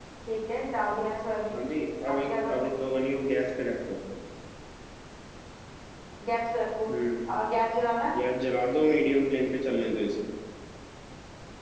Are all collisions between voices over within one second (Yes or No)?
Yes